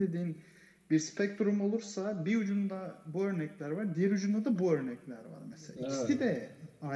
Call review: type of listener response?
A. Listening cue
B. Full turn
A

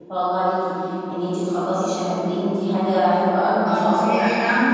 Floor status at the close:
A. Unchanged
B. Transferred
B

